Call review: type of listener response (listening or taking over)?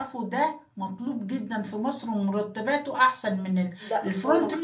listening